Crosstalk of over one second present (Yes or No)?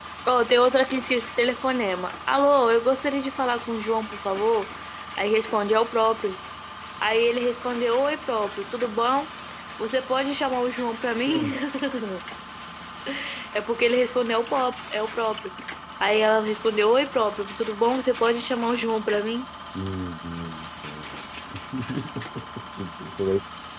No